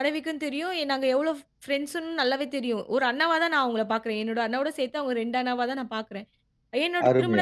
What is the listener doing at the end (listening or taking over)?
listening